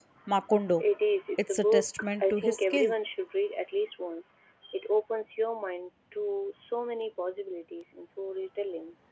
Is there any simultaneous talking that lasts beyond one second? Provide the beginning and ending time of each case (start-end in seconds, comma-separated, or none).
1.4-2.9